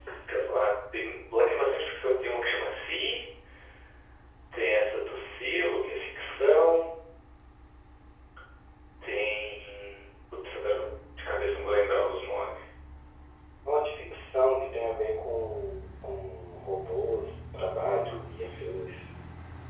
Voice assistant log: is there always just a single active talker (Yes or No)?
Yes